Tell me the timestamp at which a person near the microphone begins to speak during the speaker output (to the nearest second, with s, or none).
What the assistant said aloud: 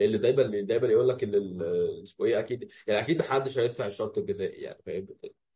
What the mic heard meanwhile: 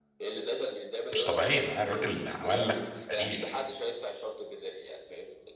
1 s